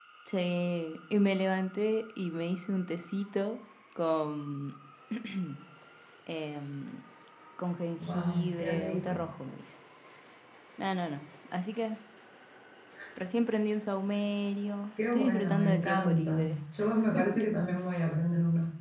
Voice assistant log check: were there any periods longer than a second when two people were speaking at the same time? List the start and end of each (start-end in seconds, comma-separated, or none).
8.0-9.3, 15.1-16.6